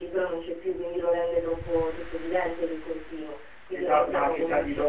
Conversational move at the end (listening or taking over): taking over